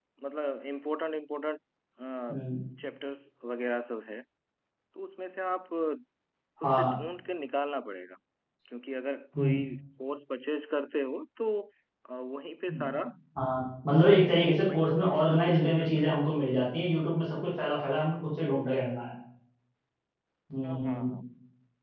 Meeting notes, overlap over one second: present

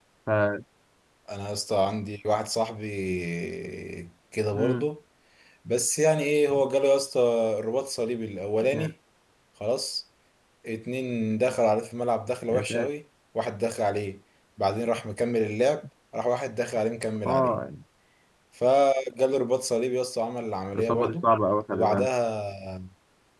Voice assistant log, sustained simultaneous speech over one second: none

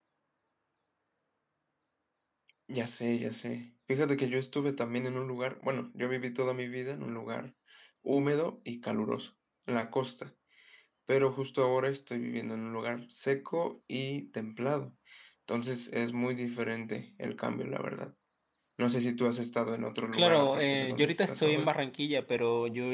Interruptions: present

